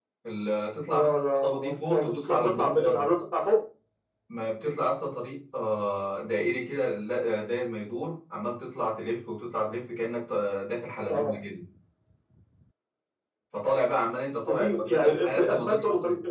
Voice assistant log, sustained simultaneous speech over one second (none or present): present